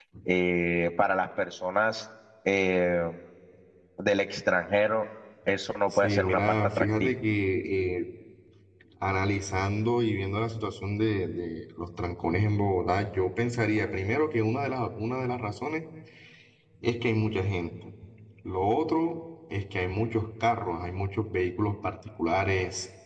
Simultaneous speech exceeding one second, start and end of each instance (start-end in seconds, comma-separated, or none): 5.9-7.1